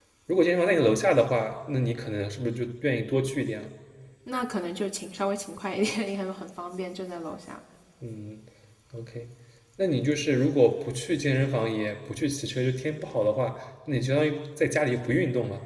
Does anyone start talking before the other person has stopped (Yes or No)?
No